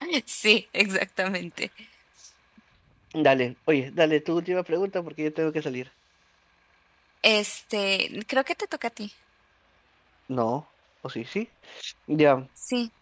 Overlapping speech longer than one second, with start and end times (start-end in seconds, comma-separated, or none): none